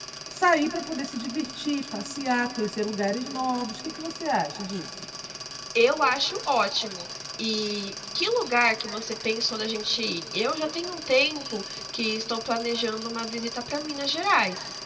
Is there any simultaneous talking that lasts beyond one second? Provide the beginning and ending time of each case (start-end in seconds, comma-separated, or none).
none